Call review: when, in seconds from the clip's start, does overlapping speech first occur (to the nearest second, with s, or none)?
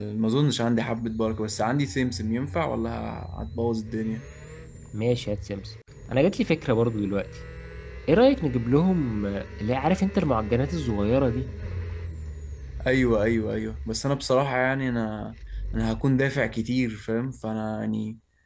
none